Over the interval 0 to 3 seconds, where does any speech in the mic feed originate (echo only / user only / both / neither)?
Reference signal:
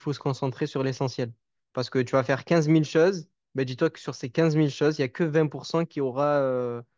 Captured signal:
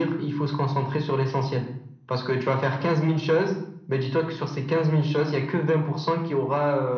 echo only